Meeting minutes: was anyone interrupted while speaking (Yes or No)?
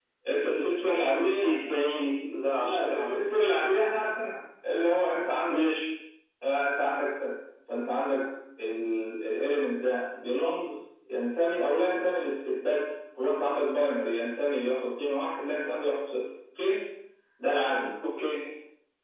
Yes